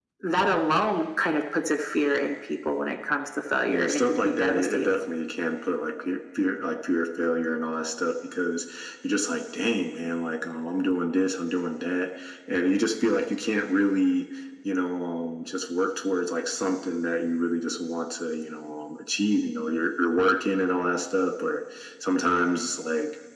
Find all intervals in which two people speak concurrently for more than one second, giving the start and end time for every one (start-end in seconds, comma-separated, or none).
3.7-4.9